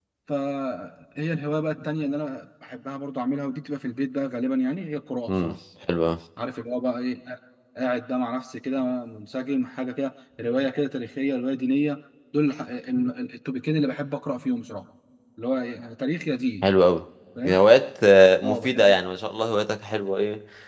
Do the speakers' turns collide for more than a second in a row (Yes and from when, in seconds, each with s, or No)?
No